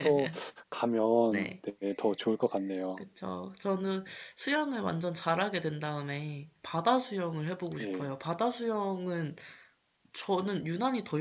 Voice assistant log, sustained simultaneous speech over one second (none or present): none